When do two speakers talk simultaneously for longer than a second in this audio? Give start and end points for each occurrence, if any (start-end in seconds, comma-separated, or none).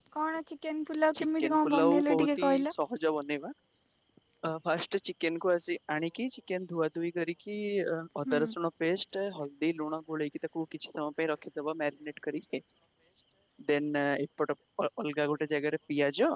1.2-2.7